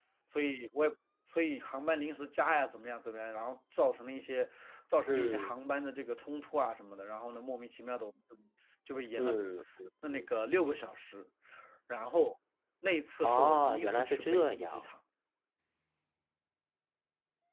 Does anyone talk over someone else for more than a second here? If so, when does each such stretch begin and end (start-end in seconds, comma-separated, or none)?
13.2-14.8